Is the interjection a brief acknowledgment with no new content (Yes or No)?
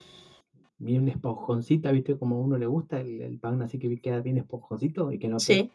Yes